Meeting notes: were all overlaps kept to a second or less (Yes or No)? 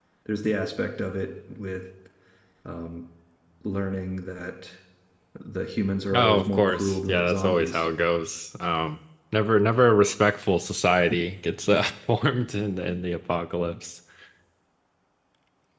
No